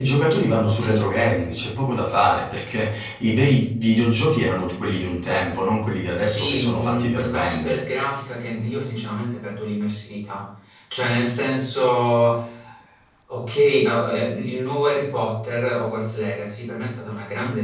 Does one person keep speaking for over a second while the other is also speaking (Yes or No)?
Yes